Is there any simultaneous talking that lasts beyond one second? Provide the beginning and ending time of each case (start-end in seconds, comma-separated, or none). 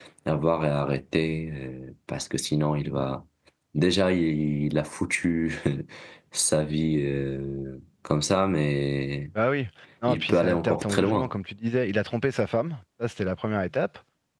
10.1-11.3